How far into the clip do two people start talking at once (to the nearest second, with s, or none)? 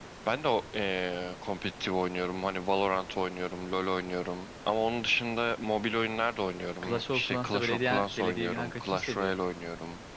7 s